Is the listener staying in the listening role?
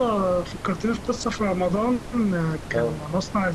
Yes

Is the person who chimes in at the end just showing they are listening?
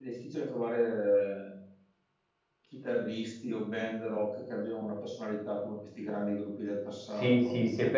No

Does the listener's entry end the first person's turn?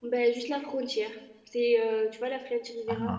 No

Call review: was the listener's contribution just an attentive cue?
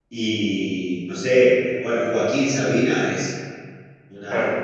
Yes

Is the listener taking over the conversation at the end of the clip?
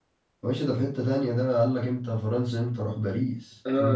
Yes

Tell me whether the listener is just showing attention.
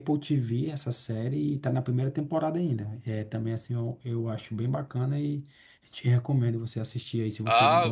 No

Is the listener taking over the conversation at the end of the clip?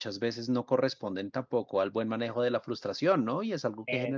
No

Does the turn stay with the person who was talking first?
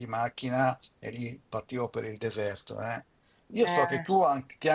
Yes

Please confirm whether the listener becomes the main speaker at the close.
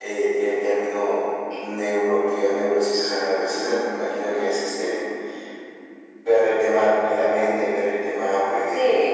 Yes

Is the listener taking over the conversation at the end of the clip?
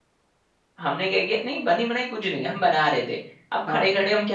No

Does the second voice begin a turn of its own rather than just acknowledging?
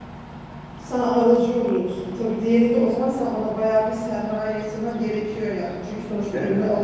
No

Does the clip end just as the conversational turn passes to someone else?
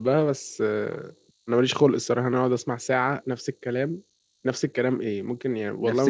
No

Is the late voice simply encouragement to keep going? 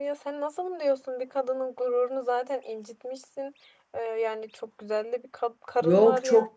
No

